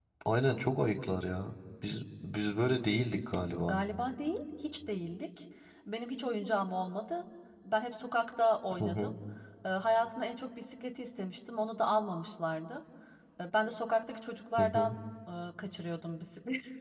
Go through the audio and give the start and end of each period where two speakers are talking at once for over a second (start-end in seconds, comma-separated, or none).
none